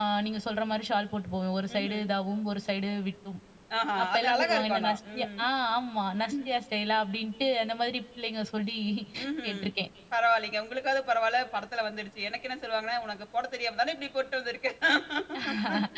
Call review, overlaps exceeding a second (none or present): present